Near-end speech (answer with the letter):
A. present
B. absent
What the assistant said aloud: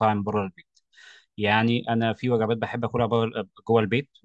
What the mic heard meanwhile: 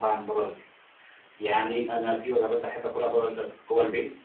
B